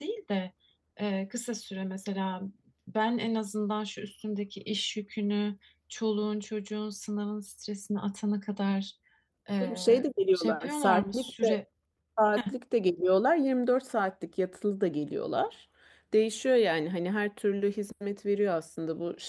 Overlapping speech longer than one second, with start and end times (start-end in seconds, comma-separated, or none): 10.3-11.6